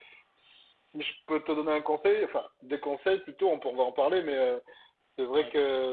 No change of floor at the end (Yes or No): Yes